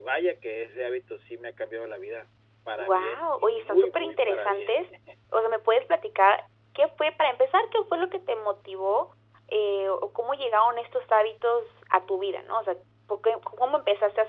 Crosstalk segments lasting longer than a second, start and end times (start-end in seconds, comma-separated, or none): 2.8-4.8